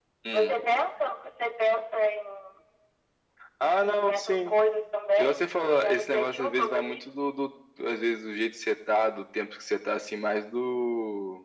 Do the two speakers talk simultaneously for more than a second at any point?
Yes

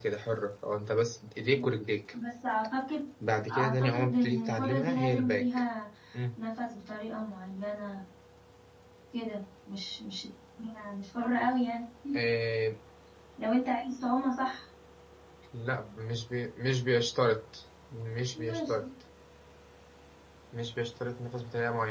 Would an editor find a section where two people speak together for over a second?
Yes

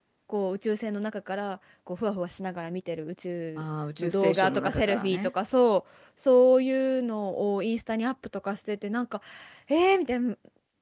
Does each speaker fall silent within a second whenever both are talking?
No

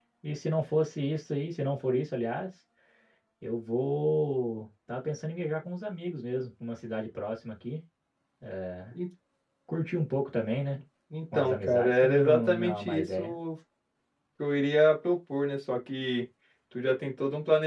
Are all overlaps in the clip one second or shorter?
No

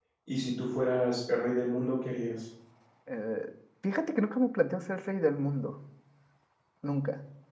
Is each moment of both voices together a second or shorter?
Yes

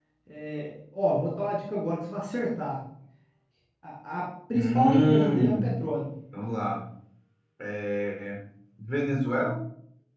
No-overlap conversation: No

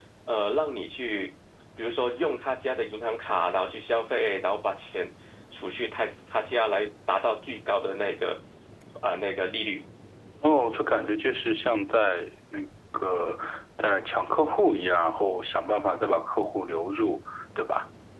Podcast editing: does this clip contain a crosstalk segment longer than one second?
No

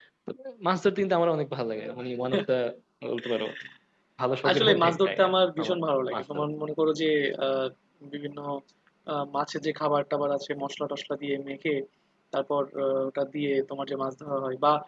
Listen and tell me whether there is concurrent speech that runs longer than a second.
Yes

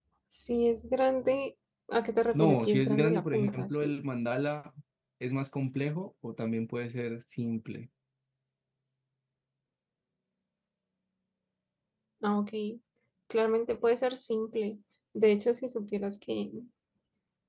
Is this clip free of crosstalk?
No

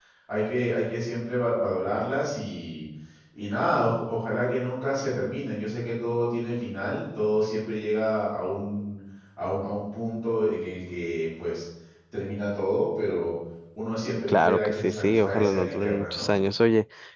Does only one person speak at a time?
No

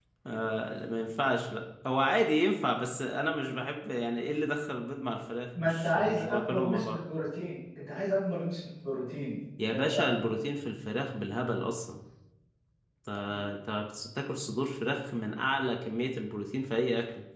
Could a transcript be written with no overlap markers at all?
No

